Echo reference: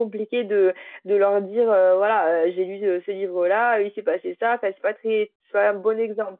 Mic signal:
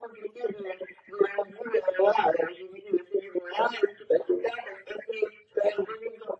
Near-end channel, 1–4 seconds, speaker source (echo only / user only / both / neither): echo only